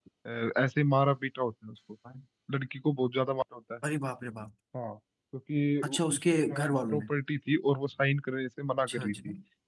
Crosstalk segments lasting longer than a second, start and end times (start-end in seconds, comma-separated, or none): 5.8-7.0